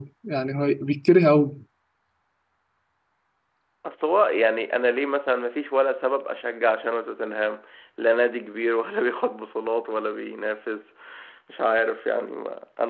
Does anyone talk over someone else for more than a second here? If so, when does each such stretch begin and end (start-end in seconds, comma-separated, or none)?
none